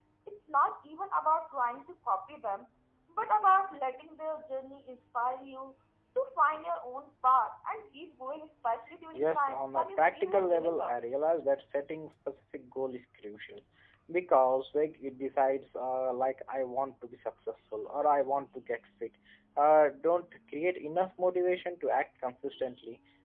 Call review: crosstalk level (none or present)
present